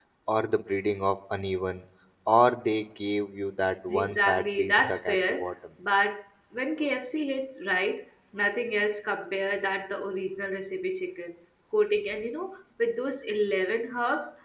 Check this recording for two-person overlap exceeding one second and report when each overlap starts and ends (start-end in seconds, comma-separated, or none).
3.9-5.5